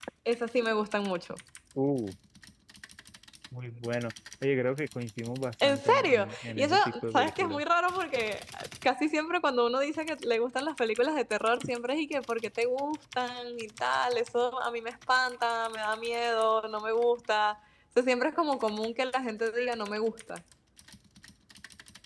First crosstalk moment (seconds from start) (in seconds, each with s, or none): 5.6 s